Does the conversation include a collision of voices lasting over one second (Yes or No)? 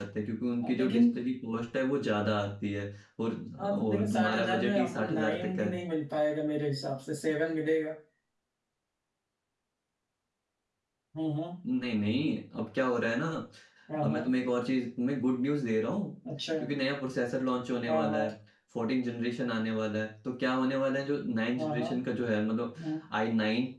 Yes